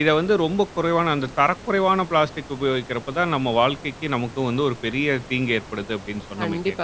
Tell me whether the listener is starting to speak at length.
Yes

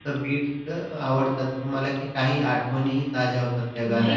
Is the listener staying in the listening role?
No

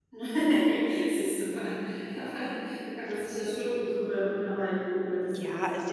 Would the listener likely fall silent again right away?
No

